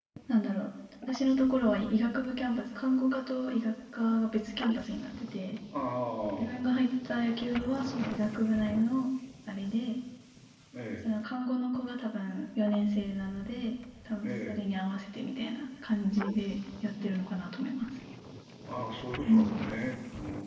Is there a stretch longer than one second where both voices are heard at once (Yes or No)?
No